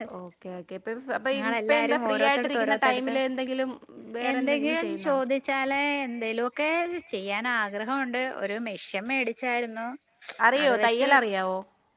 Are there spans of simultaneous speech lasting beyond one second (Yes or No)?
Yes